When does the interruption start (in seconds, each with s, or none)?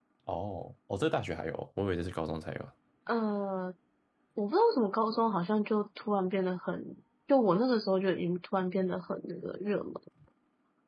none